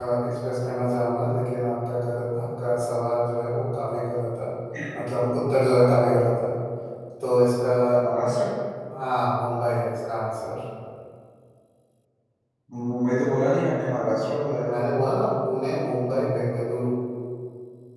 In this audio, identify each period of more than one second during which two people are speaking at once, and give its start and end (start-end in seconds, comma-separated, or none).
none